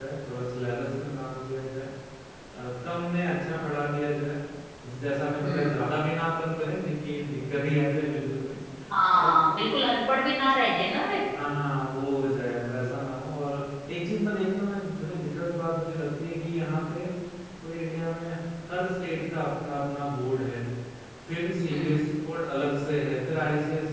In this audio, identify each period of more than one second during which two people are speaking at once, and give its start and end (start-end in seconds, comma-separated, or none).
none